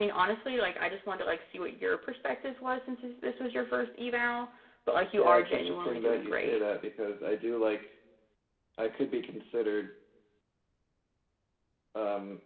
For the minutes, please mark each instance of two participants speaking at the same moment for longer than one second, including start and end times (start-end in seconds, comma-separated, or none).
5.2-6.6